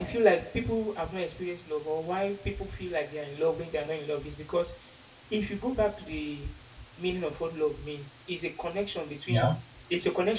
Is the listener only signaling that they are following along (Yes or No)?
Yes